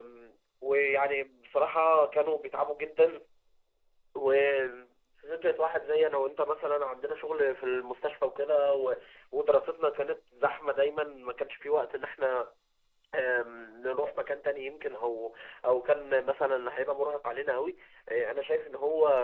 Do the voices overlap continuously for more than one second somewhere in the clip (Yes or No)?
No